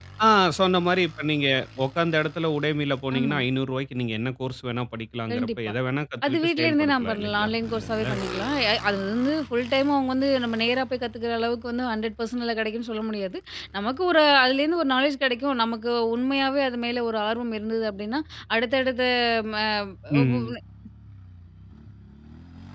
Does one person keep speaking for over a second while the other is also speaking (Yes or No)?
Yes